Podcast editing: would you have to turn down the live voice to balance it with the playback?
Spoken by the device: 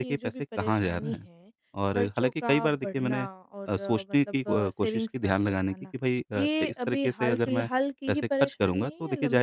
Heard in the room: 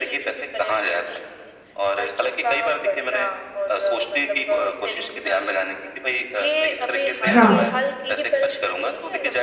Yes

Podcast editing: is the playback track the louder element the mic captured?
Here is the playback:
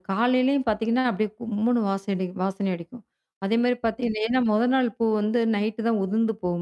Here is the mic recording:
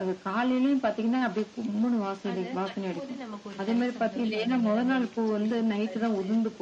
Yes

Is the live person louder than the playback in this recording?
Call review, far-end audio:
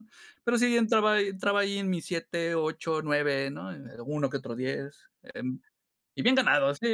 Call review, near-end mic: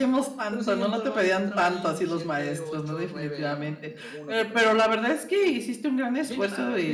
Yes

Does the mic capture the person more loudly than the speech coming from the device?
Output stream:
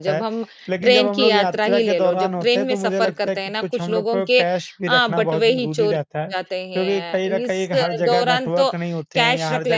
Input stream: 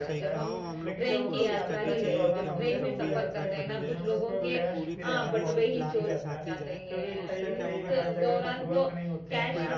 No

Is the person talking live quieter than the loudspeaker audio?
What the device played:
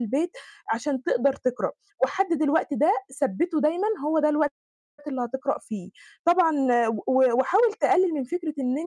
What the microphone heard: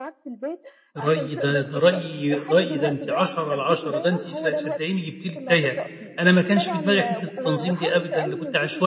No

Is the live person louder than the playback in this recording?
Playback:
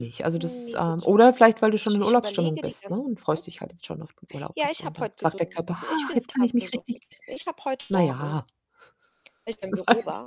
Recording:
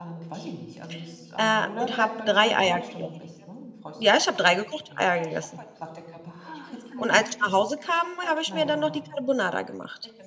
Yes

